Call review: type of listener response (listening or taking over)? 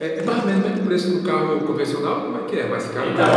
taking over